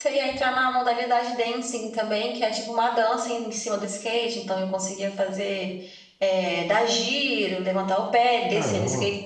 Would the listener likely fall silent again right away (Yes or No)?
Yes